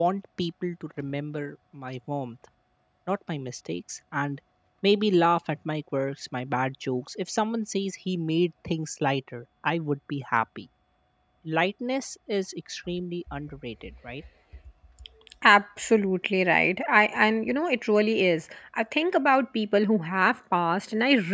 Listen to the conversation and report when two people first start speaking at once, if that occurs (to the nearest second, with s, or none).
none